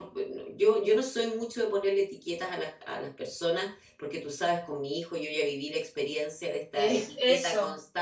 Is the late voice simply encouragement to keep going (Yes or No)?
Yes